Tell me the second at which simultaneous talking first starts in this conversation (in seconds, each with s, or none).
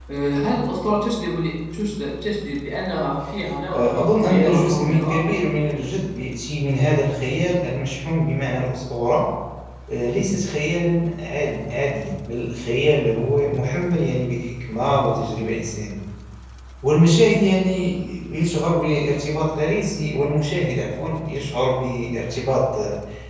3.7 s